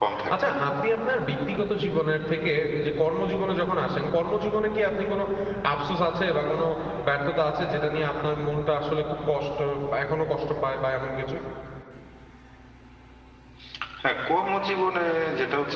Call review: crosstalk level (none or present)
none